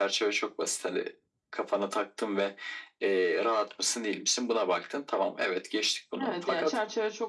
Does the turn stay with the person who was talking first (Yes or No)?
No